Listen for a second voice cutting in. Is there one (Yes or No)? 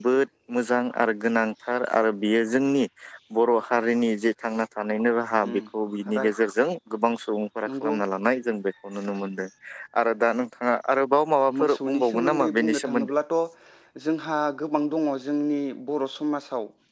Yes